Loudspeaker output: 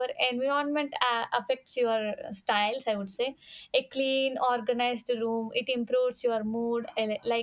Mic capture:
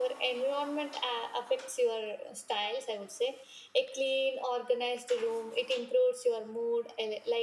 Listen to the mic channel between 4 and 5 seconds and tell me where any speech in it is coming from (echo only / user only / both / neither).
echo only